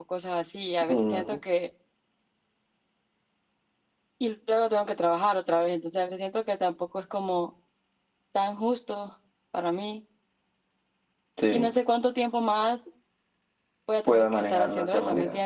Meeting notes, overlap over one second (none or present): present